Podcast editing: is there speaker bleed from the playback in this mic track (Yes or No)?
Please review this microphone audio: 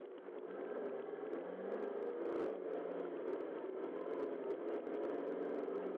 No